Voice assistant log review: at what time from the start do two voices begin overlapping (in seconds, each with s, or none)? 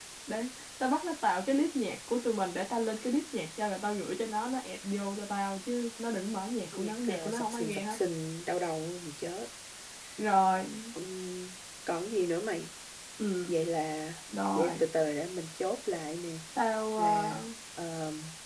6.7 s